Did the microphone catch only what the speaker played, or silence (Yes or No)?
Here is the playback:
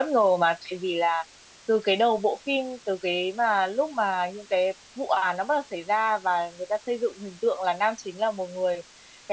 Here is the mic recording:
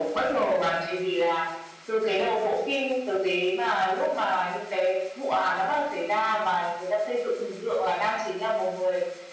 Yes